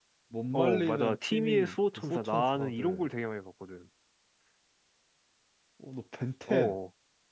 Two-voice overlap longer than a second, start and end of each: 0.5-3.1

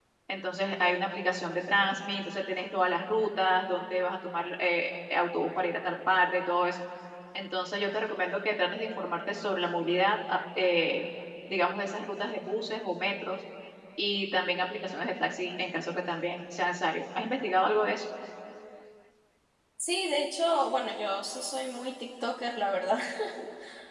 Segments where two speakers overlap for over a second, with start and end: none

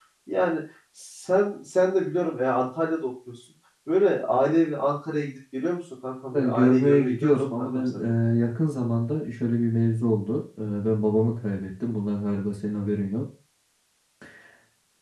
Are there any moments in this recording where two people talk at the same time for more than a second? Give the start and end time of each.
6.4-8.0

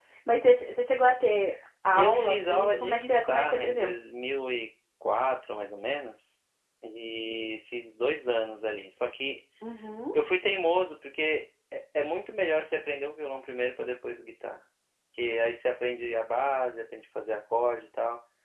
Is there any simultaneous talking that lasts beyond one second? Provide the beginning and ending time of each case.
1.9-3.9

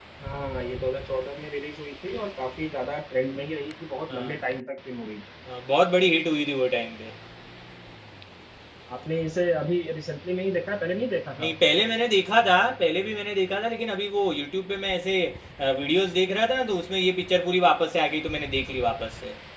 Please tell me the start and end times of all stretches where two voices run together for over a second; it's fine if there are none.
none

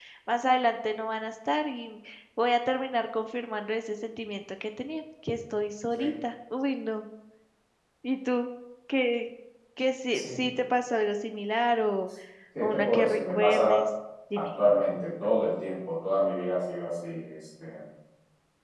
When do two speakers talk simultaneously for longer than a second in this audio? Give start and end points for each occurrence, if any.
12.6-13.8

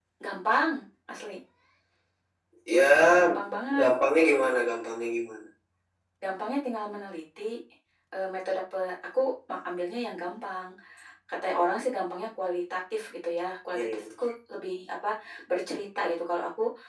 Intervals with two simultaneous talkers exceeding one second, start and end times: none

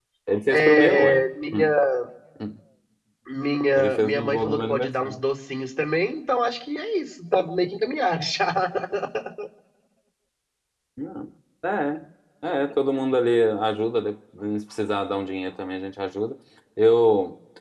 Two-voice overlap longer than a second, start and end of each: 0.5-1.7, 3.8-5.2

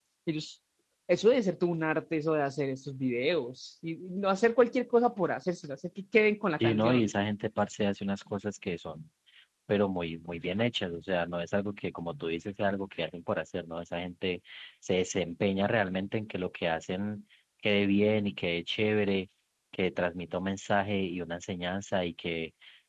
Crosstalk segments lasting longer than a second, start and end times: none

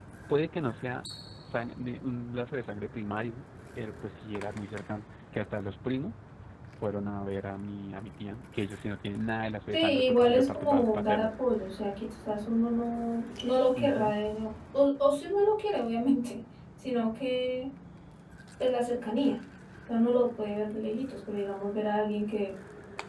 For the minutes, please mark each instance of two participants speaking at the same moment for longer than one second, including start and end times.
9.7-11.3

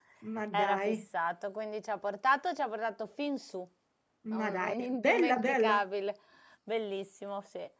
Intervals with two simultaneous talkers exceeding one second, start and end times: 4.4-5.8

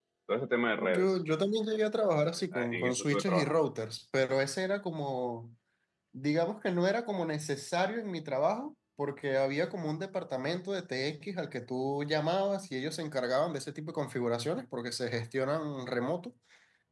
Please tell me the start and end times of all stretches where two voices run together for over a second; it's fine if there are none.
2.3-3.7

